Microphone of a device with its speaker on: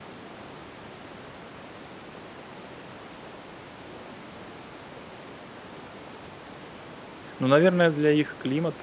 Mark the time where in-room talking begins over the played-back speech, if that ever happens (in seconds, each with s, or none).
7.4 s